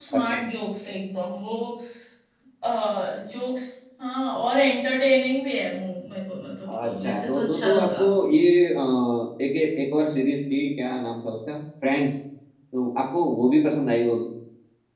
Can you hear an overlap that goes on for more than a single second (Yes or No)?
Yes